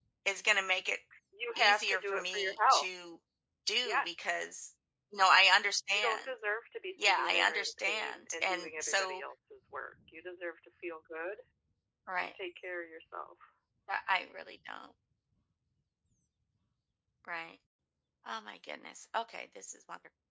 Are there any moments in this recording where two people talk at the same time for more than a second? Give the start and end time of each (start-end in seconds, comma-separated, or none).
1.6-2.9, 7.0-9.2